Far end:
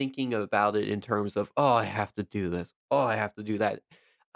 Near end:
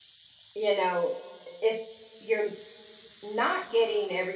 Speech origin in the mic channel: user only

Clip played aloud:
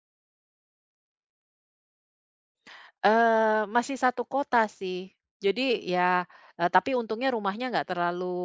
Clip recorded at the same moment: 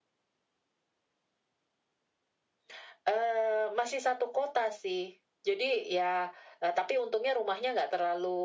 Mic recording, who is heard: echo only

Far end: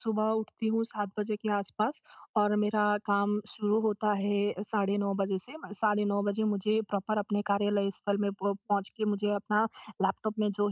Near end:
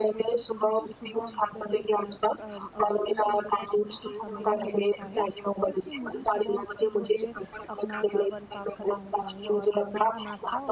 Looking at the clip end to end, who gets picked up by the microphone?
both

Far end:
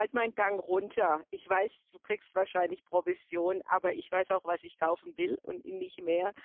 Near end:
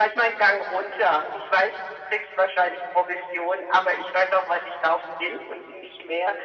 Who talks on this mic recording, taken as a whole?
echo only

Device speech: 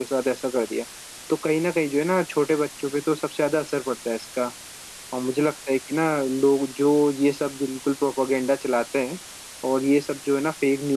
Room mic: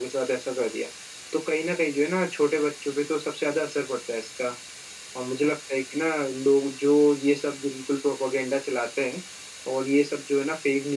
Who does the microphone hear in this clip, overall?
echo only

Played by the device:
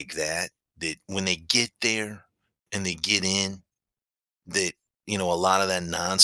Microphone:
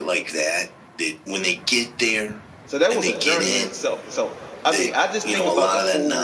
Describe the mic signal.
both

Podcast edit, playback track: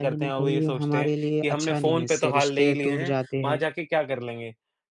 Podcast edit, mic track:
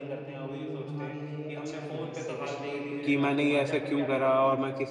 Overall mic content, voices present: both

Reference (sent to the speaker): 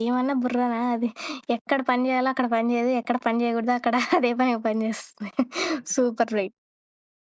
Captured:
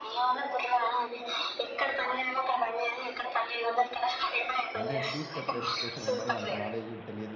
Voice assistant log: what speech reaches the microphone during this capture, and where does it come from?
both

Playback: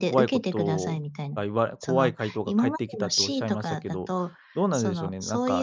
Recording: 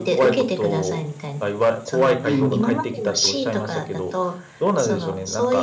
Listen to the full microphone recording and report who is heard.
both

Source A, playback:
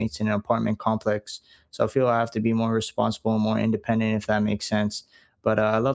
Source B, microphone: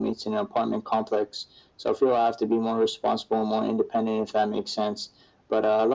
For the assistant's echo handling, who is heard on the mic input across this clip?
echo only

